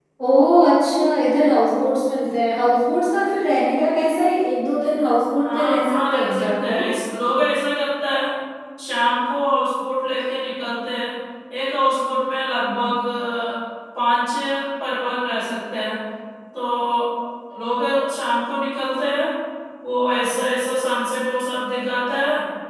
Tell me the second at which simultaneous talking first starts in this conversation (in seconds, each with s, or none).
5.4 s